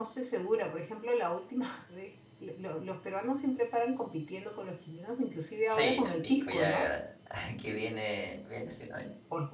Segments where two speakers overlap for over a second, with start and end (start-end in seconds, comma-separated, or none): 5.7-6.9